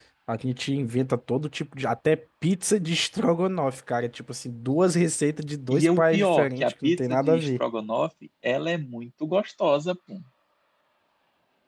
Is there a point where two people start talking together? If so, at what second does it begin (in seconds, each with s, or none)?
5.7 s